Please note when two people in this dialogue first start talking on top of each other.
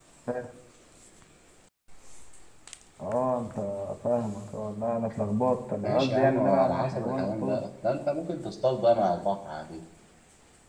5.8 s

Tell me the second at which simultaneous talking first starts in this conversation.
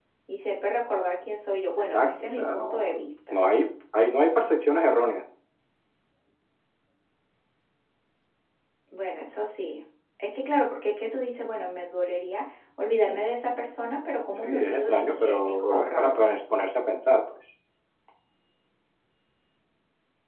1.8 s

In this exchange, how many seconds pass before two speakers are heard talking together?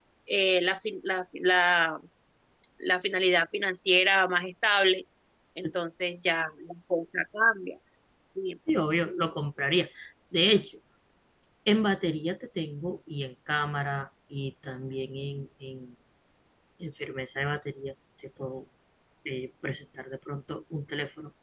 none

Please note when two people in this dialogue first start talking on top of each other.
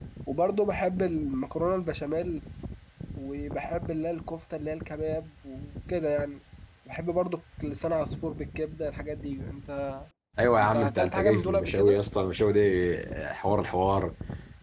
10.6 s

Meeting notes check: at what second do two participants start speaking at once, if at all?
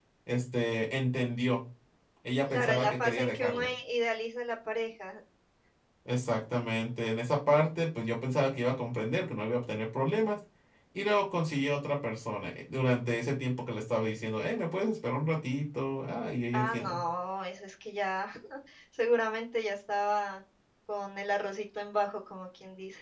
2.5 s

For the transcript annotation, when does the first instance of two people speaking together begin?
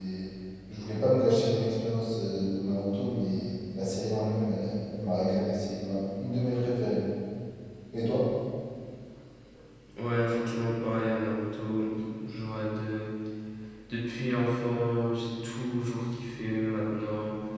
none

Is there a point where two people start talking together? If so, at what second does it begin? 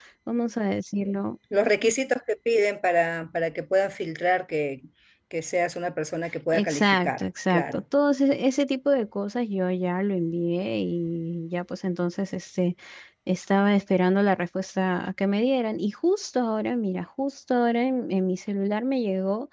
6.5 s

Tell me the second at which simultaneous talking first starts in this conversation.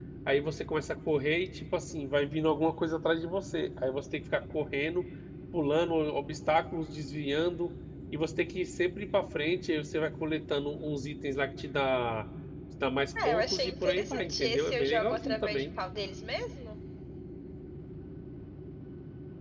13.2 s

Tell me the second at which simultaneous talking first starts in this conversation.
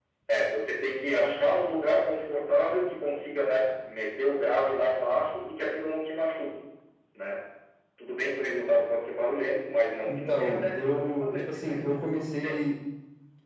10.1 s

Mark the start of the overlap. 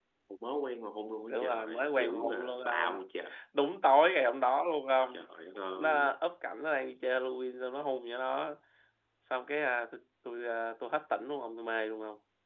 1.3 s

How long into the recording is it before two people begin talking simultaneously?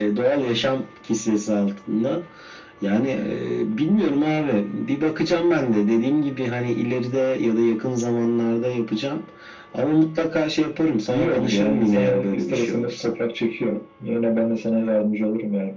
11.1 s

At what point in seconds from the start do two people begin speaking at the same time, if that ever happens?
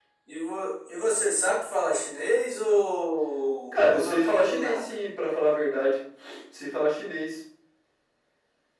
3.7 s

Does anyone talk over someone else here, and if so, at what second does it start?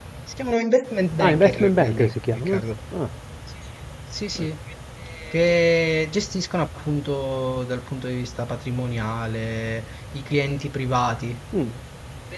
1.2 s

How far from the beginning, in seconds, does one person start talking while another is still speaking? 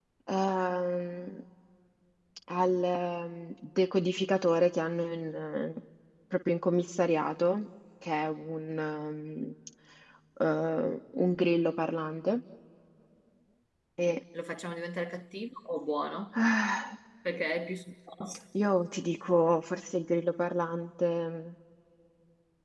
none

